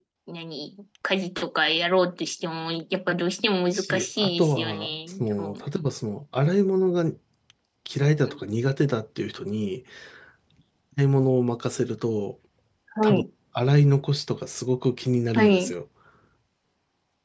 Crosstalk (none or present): present